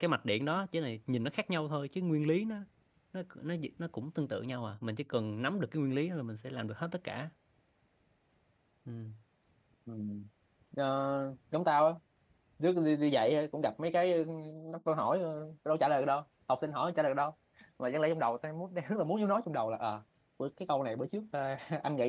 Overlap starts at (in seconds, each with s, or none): none